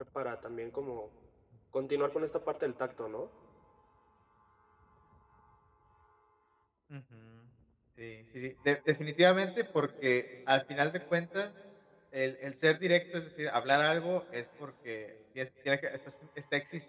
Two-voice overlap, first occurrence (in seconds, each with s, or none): none